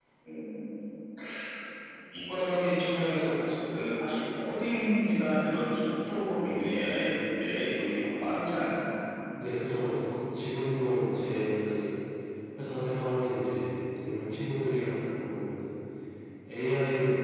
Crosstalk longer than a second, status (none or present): none